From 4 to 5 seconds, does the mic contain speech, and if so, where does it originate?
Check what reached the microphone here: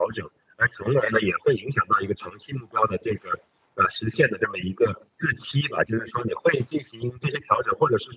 echo only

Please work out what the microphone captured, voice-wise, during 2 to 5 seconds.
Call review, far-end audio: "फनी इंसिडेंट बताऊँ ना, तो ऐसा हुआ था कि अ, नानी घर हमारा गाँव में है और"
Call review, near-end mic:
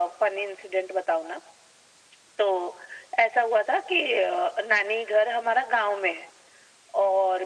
echo only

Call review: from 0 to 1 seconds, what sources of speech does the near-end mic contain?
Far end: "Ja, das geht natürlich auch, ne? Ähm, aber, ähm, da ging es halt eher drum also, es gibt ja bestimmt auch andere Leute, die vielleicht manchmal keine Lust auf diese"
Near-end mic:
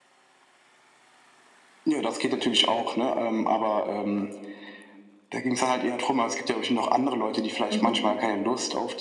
neither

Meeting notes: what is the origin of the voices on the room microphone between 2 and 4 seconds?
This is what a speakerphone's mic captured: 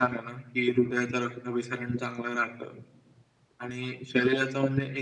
echo only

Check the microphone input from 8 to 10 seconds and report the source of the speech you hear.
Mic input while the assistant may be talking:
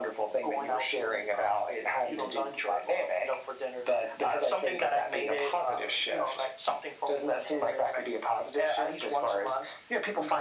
echo only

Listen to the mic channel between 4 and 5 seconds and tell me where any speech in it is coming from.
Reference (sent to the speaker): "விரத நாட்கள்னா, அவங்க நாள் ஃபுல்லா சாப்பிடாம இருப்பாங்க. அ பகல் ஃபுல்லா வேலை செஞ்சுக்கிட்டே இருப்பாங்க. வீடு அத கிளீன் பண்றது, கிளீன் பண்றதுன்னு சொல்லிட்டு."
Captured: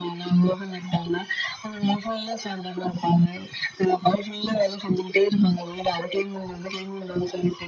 echo only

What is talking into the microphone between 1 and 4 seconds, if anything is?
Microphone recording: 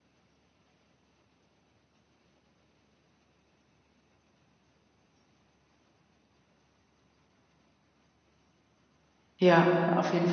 neither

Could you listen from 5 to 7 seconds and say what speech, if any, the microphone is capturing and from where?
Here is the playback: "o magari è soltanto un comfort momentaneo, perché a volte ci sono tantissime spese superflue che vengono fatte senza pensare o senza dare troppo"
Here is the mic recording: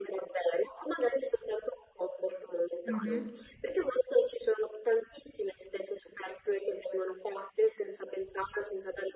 echo only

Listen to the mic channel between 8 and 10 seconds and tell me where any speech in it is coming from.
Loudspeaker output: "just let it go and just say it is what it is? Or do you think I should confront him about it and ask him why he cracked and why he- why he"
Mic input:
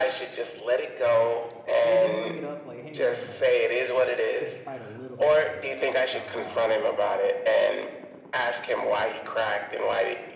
echo only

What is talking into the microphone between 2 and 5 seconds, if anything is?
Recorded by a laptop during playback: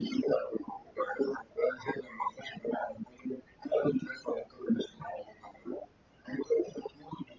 echo only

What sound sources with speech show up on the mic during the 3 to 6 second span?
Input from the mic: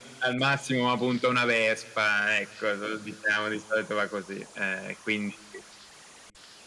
echo only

